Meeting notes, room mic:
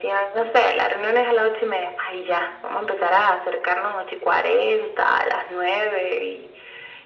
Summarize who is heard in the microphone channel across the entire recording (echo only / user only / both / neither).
echo only